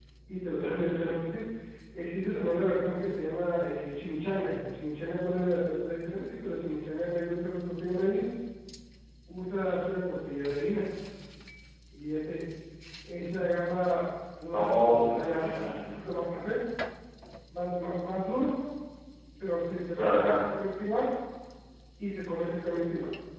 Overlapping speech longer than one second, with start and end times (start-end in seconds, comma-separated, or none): 14.5-16.0